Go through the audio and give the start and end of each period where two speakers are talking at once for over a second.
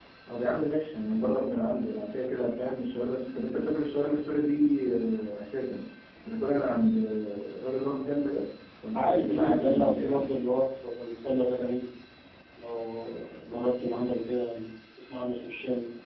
8.9-10.3

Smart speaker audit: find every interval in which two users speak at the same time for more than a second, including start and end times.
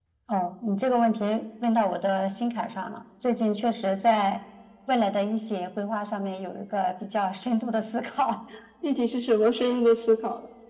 none

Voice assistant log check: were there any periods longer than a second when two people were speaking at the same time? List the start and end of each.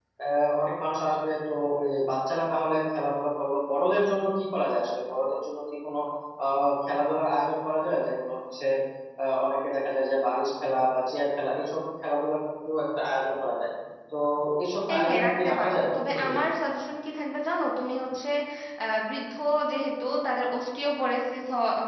14.9-16.4

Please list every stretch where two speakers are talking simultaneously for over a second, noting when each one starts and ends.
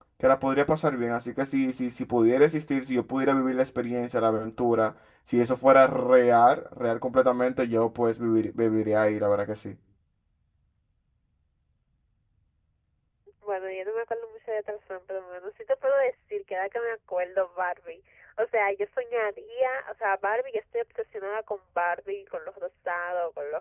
none

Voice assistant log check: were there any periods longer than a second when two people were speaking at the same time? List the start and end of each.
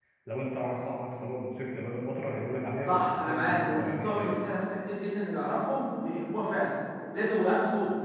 2.9-4.3

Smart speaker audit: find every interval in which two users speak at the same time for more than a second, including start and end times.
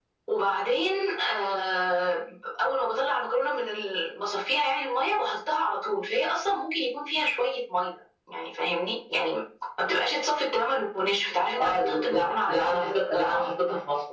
11.6-13.4

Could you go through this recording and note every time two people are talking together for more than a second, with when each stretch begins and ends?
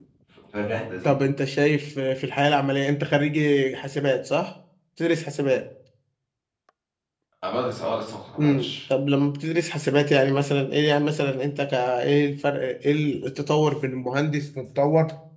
none

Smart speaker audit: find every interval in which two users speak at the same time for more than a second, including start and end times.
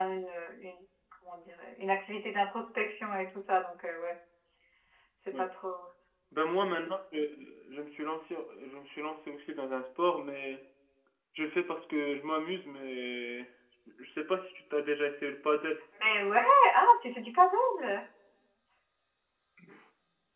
none

